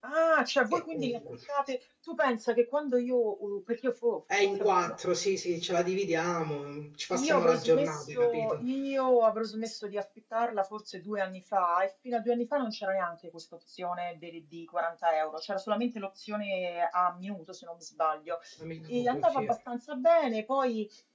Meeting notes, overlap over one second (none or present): present